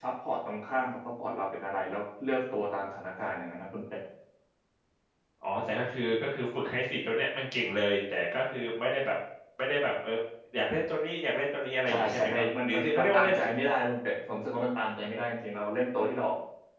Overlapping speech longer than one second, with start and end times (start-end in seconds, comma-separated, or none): 11.9-13.3